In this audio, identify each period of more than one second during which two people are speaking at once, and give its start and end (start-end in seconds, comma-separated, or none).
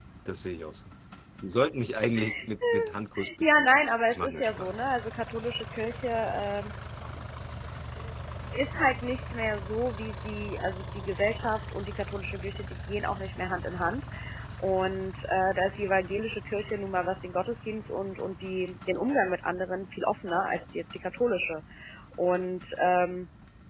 3.4-4.7